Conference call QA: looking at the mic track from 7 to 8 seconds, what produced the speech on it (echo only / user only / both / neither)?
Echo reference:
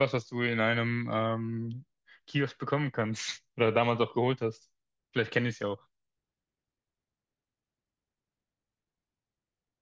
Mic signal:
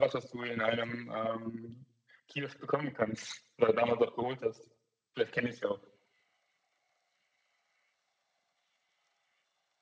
neither